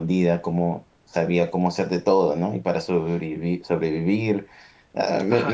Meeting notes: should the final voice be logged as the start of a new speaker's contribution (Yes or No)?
Yes